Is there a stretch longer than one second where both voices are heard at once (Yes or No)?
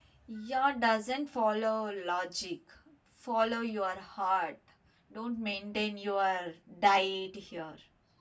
No